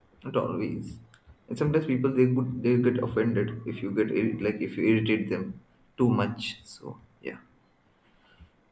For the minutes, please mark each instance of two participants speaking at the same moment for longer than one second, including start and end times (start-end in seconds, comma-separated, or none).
none